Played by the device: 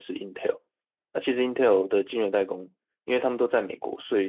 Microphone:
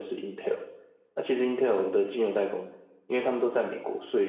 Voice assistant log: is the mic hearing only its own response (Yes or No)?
Yes